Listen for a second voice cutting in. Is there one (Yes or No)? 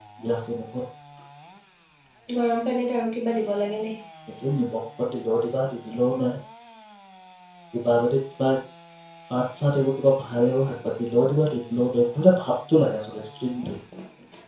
No